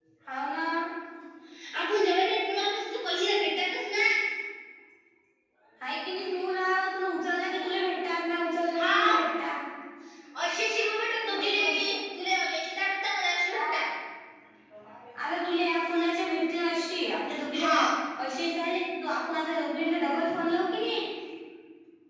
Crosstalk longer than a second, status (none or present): none